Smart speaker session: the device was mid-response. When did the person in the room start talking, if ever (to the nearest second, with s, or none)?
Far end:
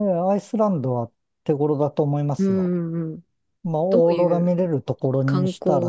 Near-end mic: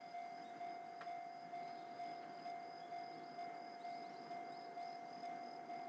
none